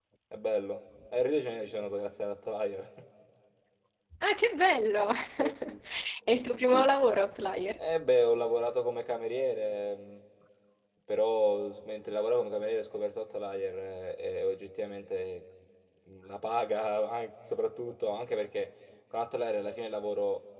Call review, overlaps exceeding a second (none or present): none